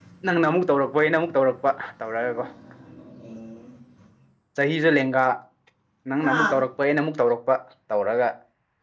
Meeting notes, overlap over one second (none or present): none